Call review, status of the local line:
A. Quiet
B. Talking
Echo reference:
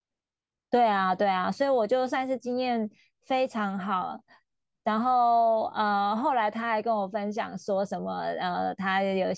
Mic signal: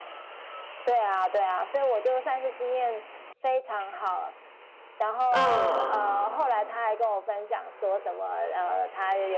B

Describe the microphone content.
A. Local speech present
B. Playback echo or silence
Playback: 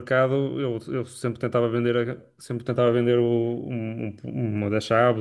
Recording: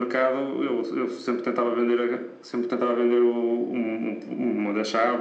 B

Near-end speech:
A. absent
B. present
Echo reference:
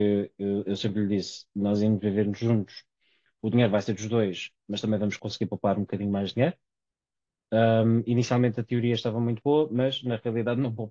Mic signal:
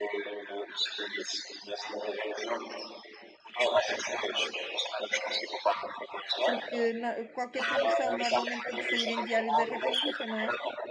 B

